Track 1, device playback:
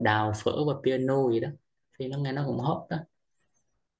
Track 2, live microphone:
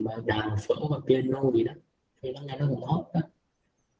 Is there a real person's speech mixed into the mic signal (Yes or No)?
No